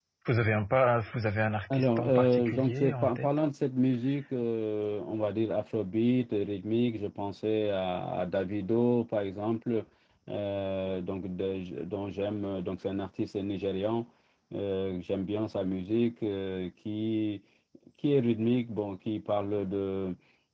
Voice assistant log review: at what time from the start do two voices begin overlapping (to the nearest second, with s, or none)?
2 s